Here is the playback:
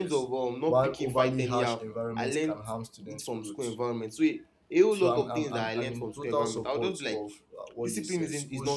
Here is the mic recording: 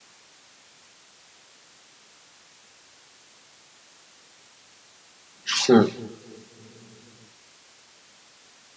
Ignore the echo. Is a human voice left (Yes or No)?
Yes